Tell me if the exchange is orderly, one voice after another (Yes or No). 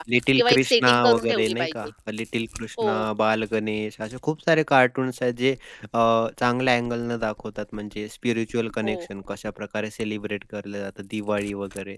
No